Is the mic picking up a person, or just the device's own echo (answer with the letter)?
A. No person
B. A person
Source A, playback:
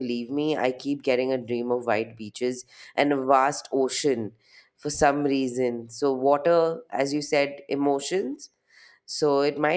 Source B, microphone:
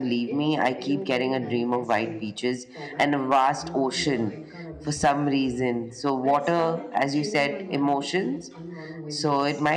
B